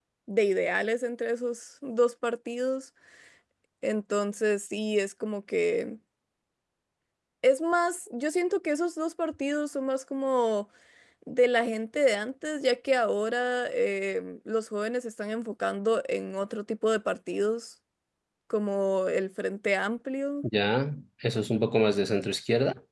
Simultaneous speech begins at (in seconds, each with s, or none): none